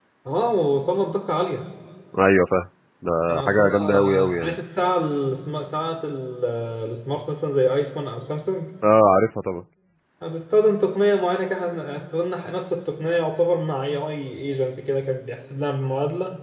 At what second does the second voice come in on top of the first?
3 s

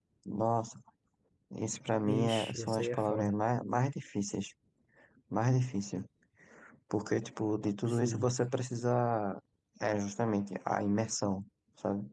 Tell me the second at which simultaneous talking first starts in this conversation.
2 s

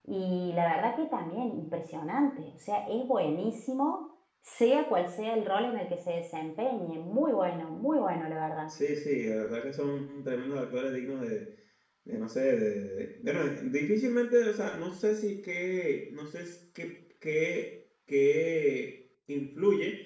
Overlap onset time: none

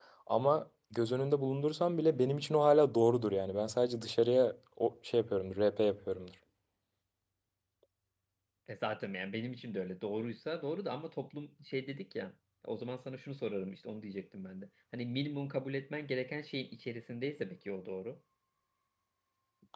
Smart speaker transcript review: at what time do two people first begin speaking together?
none

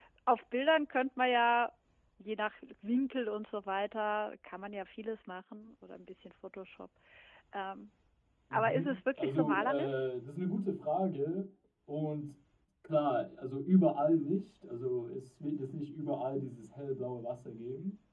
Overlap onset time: 9 s

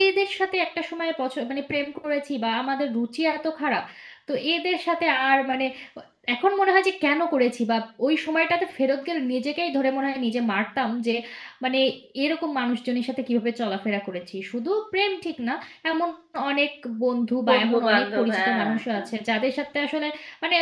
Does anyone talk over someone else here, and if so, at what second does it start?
17 s

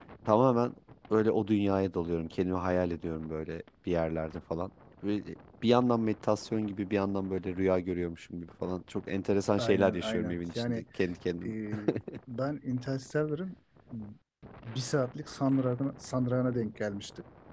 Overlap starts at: 10 s

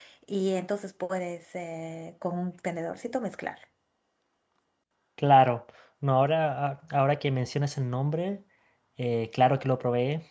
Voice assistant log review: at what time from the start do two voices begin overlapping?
none

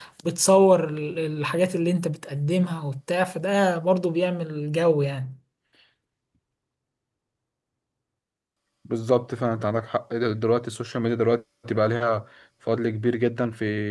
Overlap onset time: none

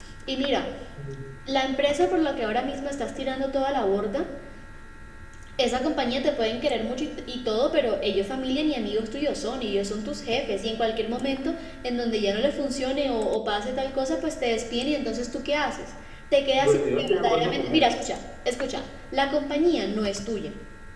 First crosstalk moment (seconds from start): 17 s

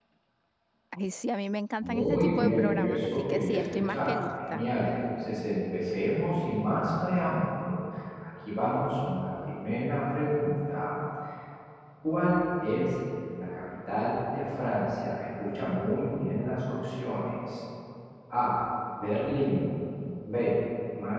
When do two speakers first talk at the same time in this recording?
2 s

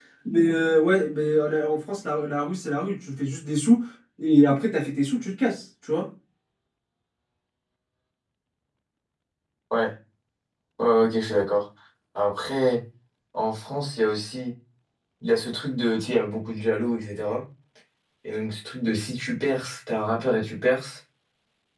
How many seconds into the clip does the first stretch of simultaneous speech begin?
none

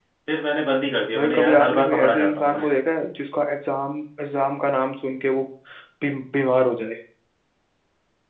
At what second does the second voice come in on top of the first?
1 s

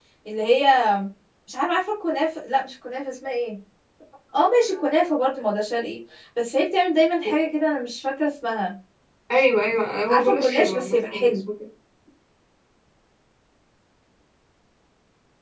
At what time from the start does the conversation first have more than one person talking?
10 s

